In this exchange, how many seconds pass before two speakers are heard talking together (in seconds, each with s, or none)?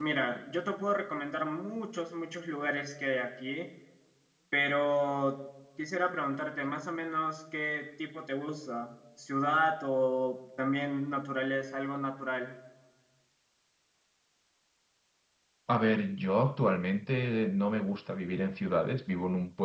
none